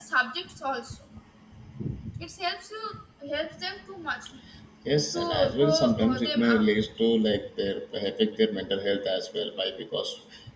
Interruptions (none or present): present